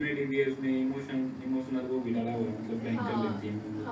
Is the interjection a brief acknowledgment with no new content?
No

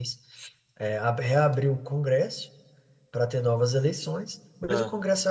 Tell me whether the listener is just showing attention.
Yes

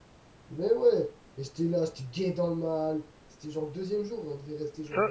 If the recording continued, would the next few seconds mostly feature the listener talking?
Yes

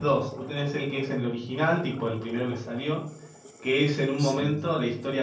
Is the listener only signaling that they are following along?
Yes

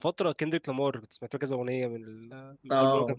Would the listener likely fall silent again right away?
No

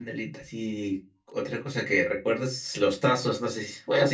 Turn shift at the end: No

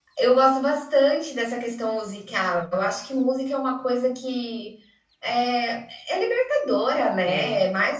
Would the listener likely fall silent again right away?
Yes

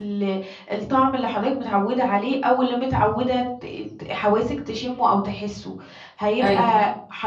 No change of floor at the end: Yes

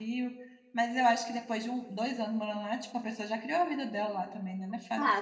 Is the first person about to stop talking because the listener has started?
Yes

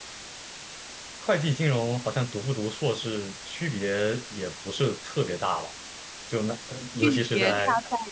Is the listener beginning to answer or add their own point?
Yes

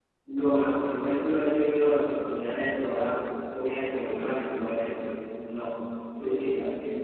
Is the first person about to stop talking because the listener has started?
Yes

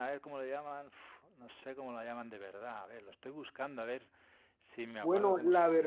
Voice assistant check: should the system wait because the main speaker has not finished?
No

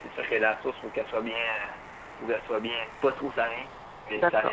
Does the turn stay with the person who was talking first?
No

